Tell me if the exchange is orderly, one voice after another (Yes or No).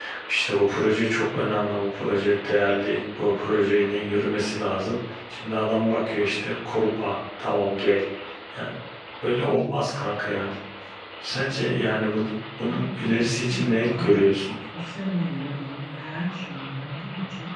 No